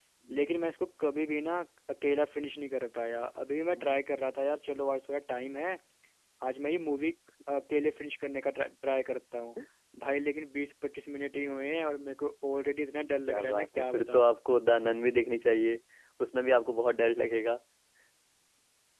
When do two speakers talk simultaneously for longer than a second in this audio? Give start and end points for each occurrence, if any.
13.0-14.3

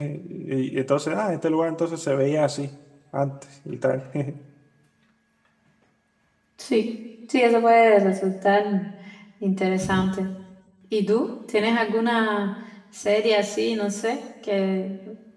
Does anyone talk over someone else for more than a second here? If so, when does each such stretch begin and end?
none

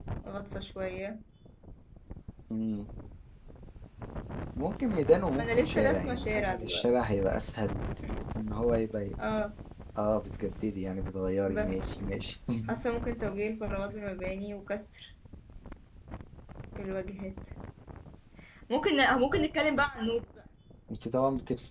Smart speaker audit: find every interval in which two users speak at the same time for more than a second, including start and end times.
5.4-6.8

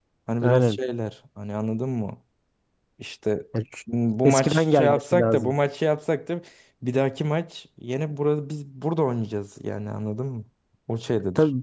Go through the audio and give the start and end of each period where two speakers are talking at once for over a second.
4.2-5.5

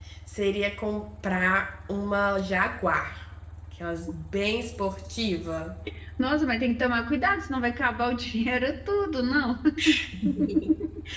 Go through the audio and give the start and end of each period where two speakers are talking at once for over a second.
none

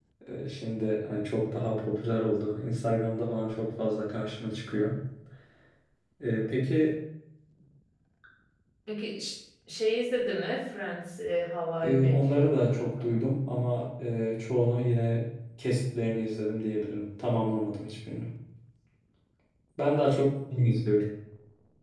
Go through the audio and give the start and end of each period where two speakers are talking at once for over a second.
11.8-13.2

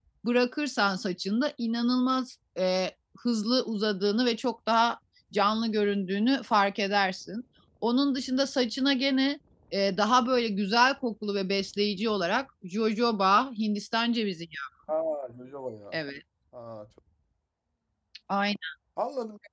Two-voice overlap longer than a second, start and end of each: none

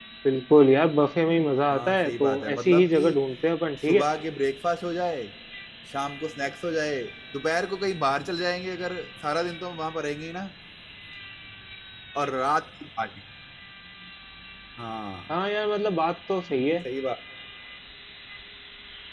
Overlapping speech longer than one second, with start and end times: 1.7-3.0

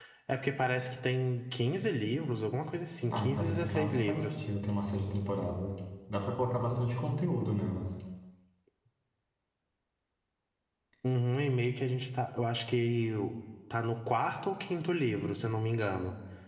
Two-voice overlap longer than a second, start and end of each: 3.1-4.4

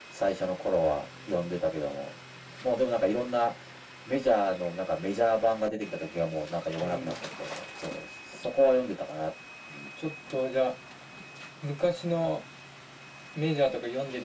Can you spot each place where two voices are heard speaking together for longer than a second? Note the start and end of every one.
none

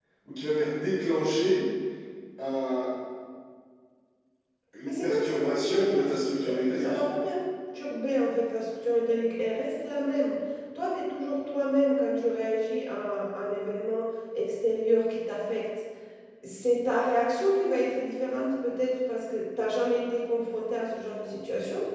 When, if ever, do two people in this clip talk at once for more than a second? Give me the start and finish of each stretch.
4.8-7.0

